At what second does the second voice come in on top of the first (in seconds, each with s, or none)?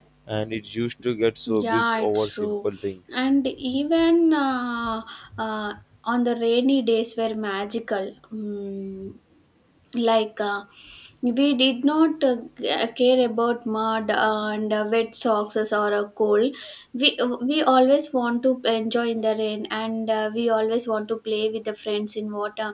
1.5 s